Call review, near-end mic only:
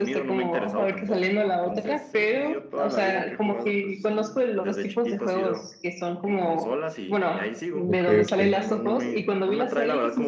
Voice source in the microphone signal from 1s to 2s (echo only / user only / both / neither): echo only